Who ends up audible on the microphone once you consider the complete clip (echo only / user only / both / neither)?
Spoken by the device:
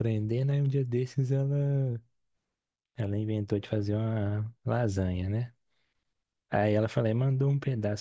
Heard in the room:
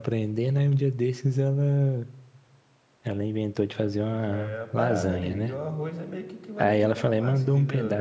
both